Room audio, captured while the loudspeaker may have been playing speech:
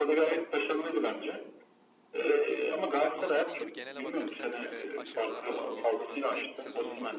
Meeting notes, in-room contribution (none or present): present